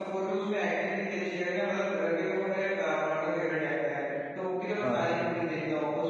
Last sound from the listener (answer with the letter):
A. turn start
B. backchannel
B